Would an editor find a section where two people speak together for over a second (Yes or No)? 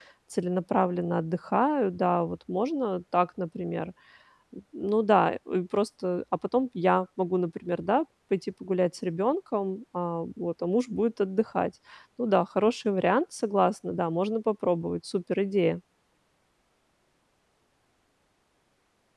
No